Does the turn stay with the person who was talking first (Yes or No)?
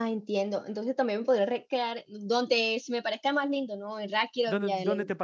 No